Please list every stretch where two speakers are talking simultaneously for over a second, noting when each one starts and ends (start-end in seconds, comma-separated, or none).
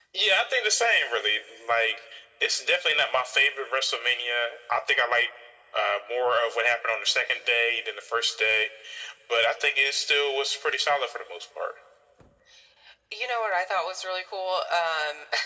none